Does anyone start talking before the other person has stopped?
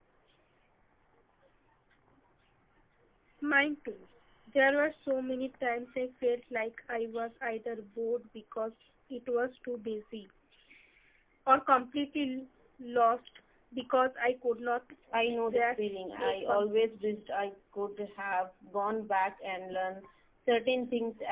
Yes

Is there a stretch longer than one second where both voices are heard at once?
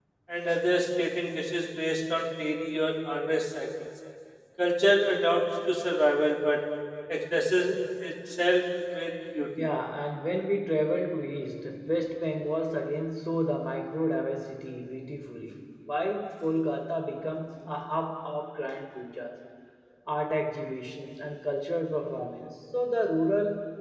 No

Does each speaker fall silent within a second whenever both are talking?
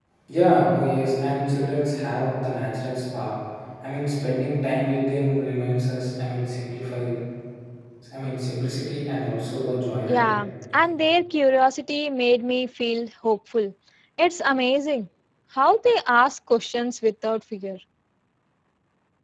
Yes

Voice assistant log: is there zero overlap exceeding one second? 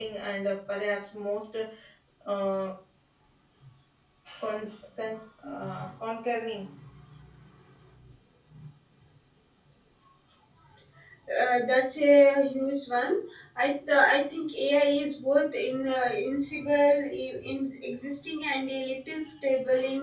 Yes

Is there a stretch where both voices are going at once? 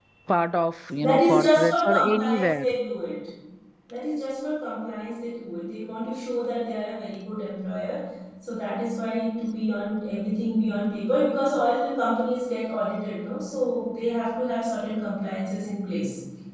Yes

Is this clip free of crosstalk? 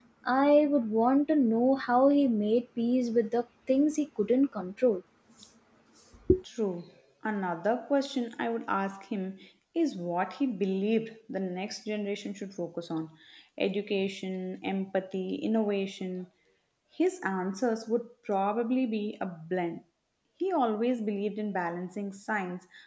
Yes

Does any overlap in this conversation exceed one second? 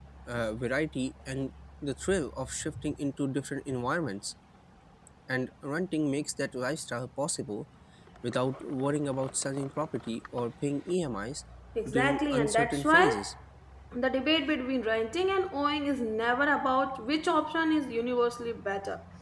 Yes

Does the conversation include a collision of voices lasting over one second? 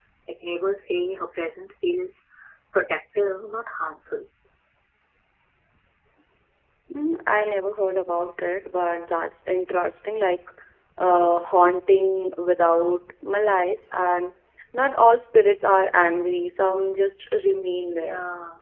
No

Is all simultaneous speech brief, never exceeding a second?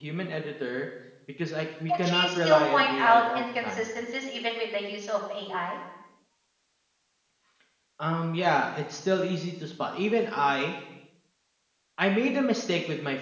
No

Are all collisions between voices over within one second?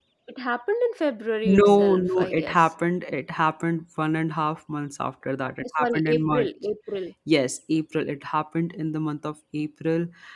No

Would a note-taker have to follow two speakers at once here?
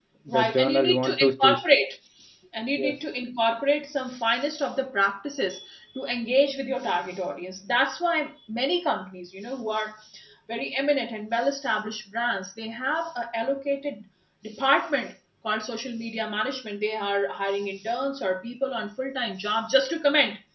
Yes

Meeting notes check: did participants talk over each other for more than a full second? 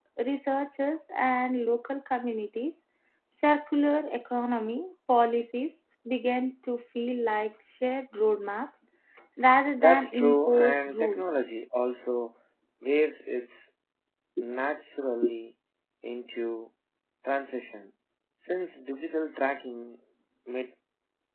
Yes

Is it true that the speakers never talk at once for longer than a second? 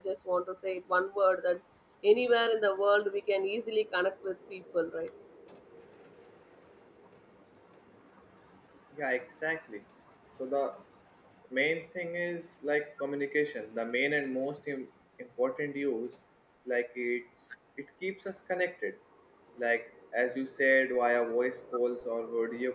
Yes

